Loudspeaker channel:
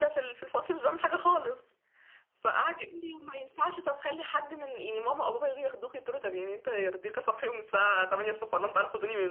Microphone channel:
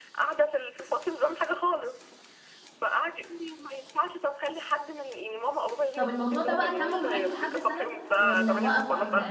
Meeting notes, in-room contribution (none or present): present